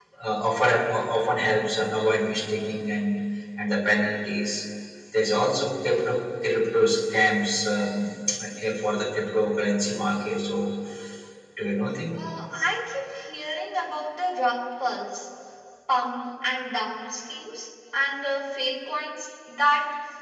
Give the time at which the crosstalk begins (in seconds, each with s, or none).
none